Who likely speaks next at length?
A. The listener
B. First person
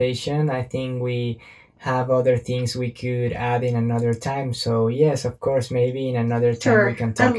A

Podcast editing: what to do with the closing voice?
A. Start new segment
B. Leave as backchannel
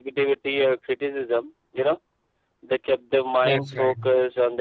B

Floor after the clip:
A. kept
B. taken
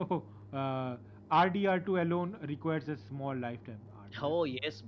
B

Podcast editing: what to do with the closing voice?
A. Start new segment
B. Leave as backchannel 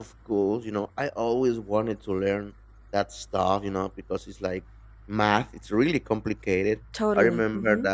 B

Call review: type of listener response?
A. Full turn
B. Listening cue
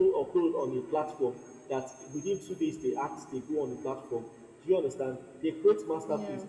B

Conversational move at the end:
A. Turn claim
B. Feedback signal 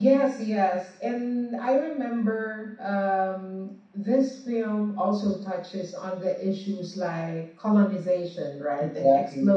B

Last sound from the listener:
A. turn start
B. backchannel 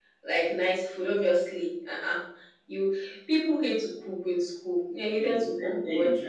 A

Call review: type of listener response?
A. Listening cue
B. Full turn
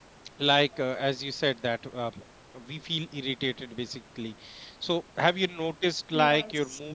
A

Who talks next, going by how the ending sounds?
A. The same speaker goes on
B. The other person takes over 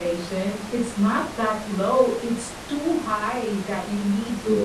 A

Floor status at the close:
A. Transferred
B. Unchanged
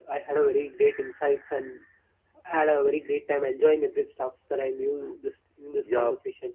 A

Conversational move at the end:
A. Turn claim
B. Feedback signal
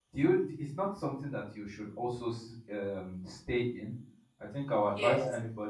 B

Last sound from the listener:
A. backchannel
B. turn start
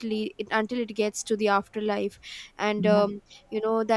A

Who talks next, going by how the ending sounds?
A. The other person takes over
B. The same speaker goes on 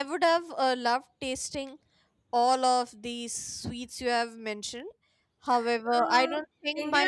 A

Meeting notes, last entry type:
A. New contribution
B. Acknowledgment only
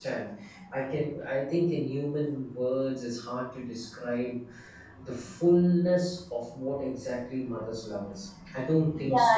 A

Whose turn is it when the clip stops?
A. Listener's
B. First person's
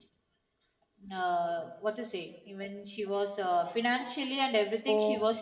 B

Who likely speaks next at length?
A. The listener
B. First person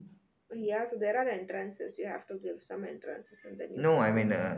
A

